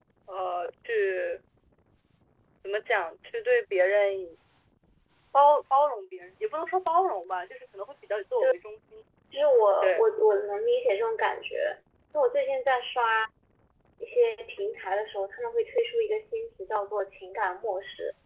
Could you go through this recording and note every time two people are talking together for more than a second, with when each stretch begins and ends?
none

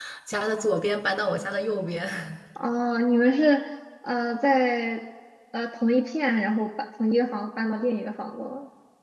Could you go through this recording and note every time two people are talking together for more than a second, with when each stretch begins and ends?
none

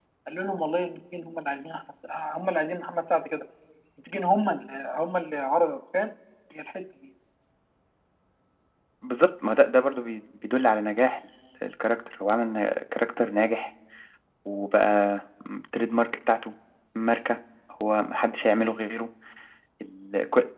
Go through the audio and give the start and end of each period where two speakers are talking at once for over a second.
none

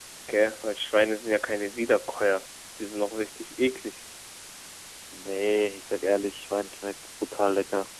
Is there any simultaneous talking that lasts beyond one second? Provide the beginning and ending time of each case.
none

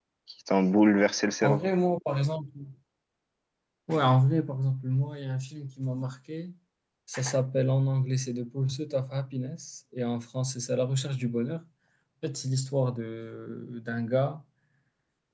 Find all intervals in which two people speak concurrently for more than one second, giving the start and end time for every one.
none

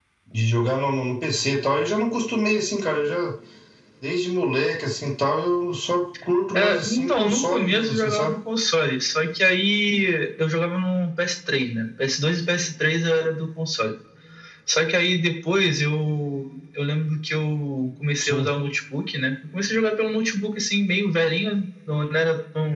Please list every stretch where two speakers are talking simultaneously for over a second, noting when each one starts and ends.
6.5-8.3

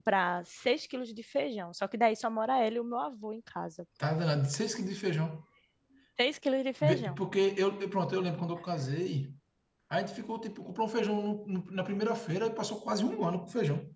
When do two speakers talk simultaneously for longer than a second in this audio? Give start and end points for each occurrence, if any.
none

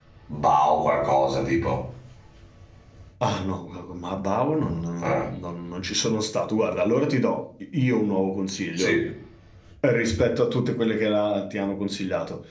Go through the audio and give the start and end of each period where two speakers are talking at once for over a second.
none

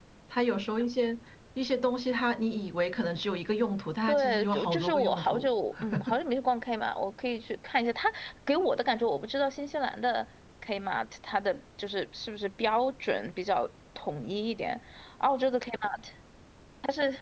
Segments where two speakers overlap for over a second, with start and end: 4.1-5.5

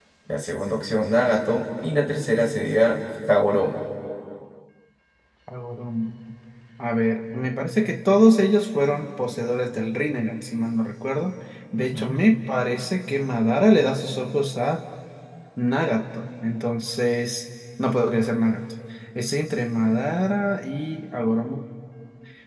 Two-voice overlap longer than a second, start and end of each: none

